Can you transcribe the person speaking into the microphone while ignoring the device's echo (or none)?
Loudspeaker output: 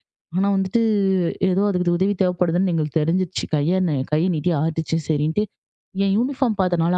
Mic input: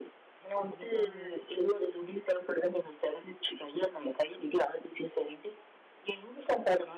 கண்டிப்பாங்க.